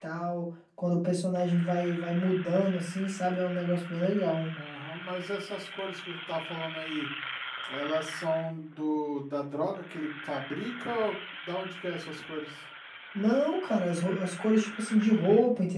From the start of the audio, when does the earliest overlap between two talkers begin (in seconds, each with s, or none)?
none